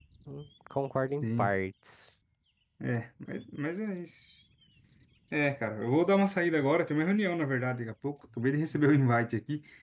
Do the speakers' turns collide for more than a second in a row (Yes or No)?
No